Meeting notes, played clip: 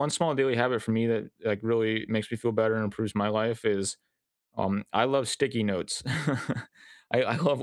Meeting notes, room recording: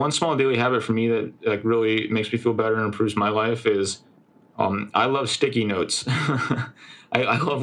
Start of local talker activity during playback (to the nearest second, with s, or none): none